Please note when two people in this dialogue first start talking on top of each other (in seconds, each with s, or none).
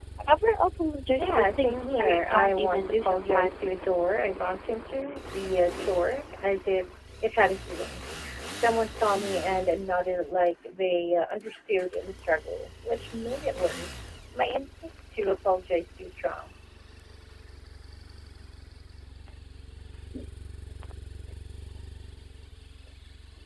1.2 s